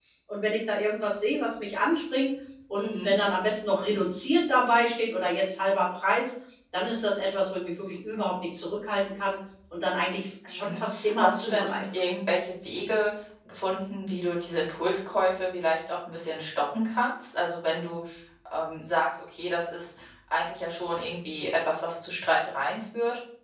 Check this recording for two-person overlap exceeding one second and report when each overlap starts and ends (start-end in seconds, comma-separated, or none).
10.5-11.8